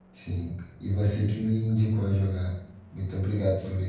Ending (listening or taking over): taking over